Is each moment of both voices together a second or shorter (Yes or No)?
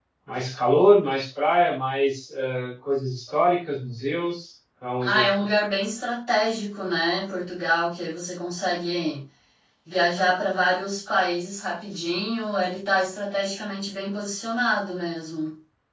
Yes